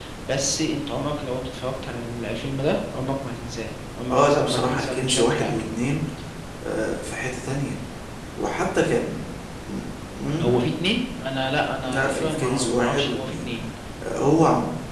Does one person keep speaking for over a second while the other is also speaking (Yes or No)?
Yes